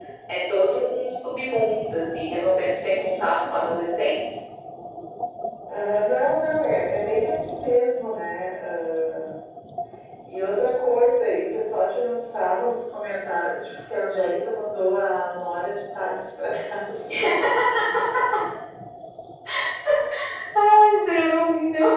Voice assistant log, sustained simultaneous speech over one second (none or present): none